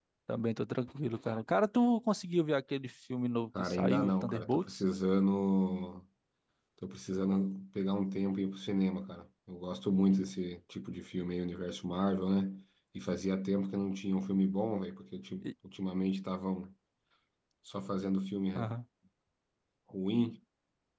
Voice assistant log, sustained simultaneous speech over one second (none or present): present